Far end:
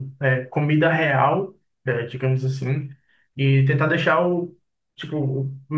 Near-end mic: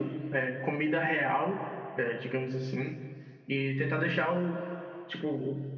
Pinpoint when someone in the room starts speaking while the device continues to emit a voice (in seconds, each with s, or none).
none